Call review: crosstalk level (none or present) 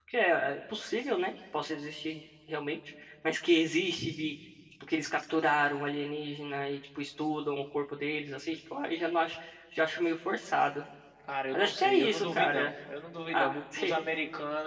present